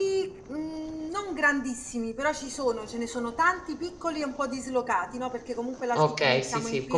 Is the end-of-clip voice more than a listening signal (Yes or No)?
Yes